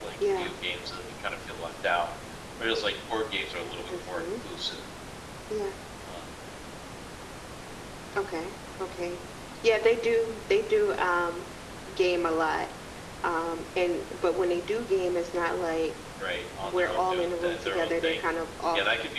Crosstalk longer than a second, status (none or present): present